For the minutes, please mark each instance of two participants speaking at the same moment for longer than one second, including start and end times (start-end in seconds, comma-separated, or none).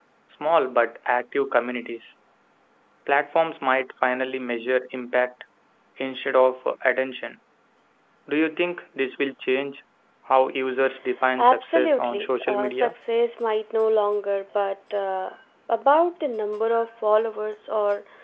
11.4-12.9